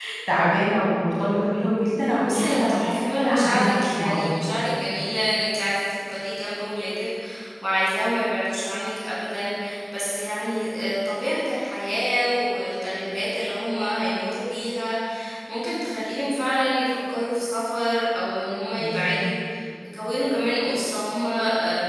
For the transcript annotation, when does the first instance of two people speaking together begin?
2 s

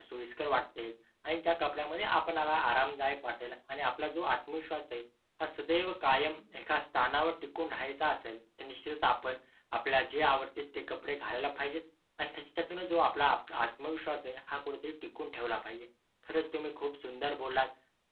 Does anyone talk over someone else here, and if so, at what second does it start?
none

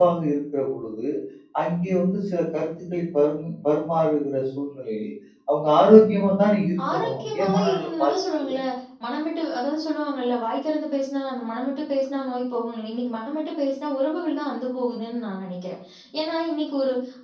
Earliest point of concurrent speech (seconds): 7 s

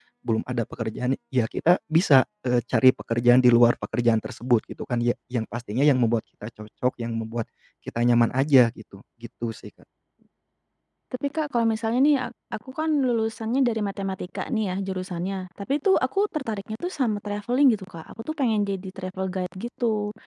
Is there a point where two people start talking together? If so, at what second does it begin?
none

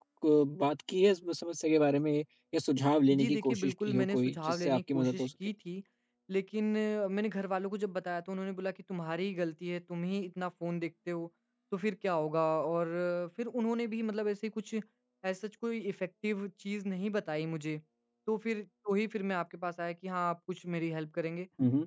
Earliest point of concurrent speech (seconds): 3 s

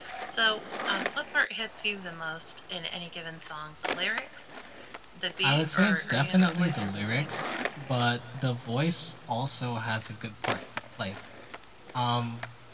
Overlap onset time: 5 s

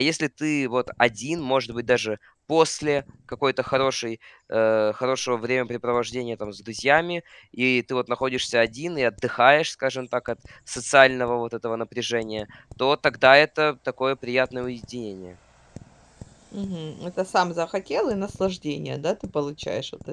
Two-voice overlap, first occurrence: none

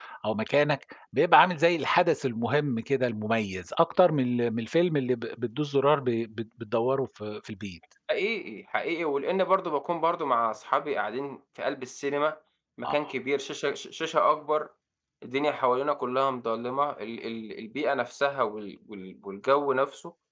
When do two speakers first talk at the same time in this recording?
none

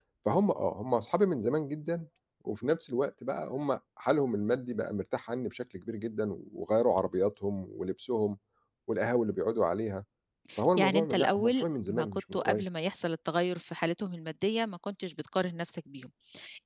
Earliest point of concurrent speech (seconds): 11 s

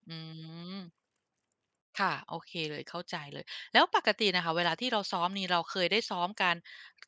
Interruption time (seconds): none

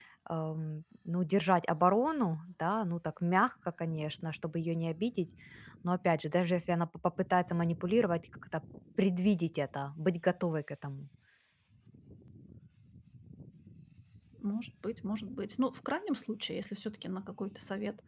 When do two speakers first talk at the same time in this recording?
none

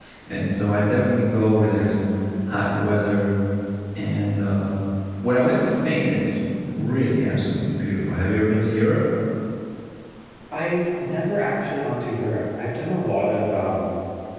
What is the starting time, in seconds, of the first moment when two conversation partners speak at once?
none

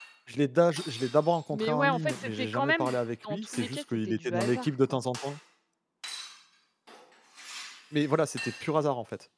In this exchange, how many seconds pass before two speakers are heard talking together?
2 s

